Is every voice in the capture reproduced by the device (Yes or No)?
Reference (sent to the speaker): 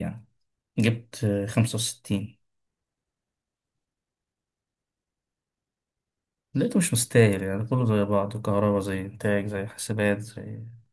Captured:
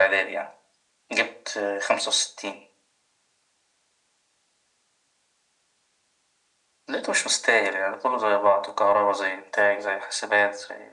Yes